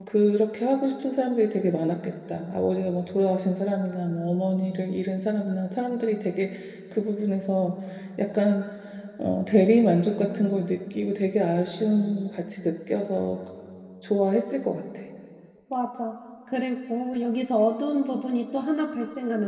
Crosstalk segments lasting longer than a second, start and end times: none

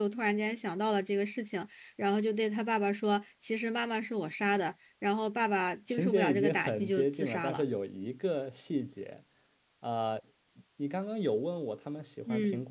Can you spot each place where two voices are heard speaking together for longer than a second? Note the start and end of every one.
5.9-7.6

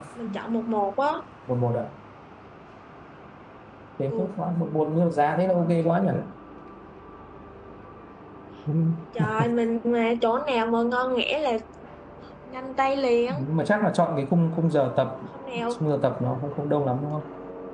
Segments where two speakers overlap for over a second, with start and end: none

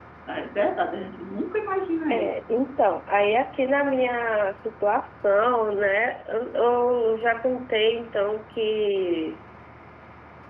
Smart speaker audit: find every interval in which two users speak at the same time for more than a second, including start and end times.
none

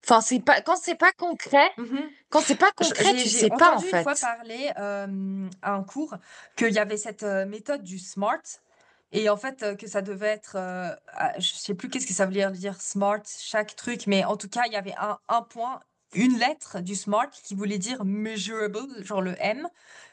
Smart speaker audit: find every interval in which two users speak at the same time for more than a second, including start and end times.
2.8-4.2

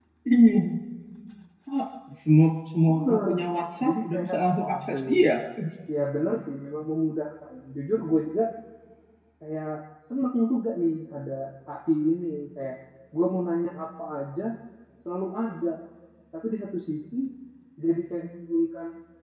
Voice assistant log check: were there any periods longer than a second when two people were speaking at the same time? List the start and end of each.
3.9-5.1

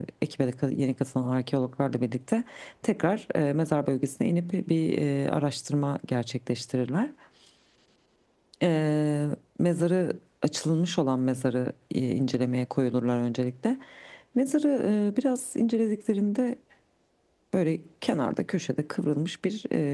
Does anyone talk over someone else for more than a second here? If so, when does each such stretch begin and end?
none

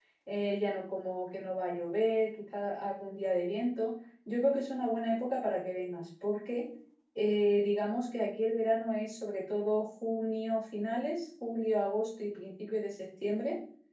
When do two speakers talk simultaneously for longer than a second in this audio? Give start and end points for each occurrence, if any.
none

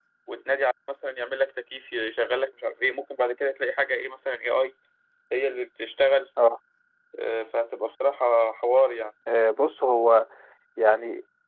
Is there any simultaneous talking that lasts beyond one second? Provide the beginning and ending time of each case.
none

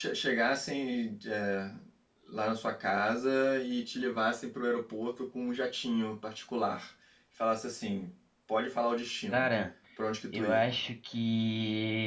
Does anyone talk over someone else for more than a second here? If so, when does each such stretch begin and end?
none

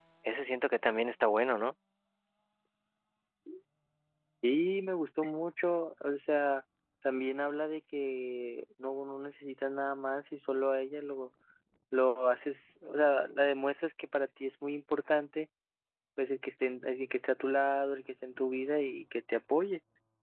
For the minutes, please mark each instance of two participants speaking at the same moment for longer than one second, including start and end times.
none

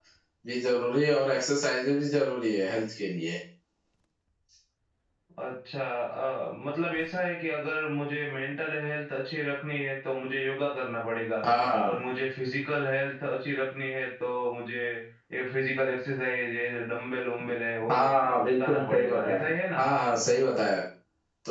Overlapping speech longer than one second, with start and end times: 18.4-19.9

